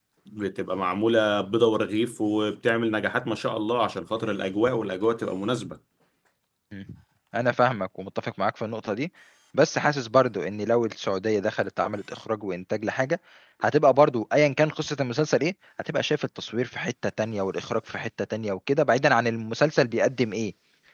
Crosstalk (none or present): none